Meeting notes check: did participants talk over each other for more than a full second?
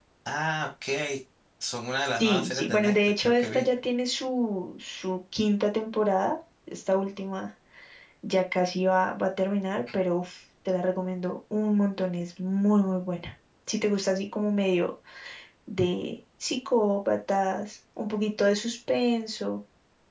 Yes, from 2.2 s

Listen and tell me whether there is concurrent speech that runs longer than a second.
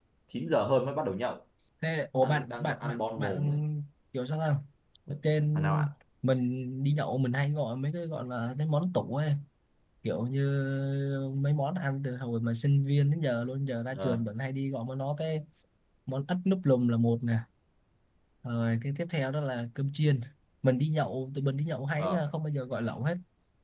Yes, from 2.2 s

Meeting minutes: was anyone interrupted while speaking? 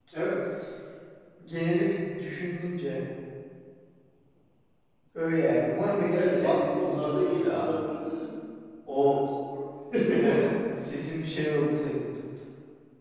Yes, from 6.1 s

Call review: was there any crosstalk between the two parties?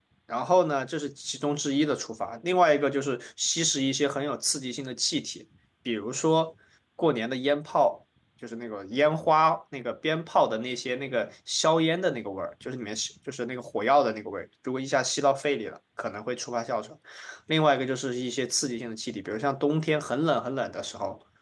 No

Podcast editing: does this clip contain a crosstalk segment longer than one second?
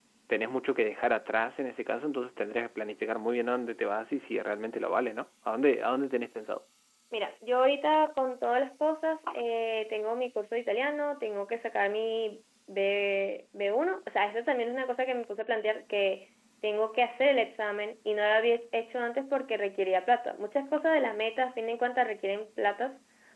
No

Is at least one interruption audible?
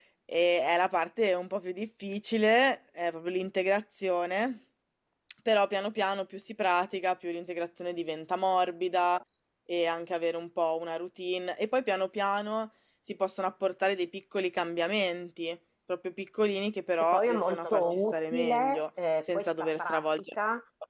Yes, from 17.0 s

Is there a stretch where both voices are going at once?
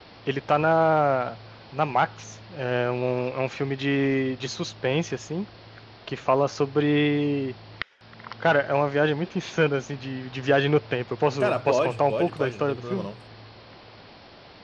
Yes, from 11.4 s

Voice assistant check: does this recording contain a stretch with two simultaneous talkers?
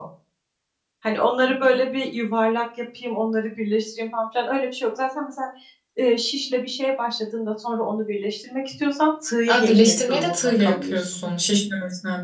Yes, from 9.5 s

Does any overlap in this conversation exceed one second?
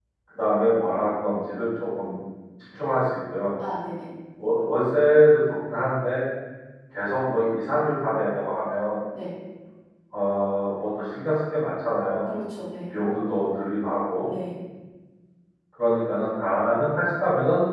No

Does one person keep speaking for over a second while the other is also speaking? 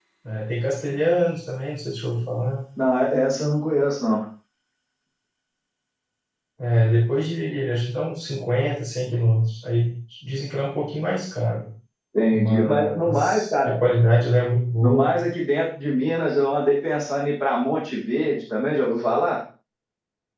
Yes, from 12.3 s

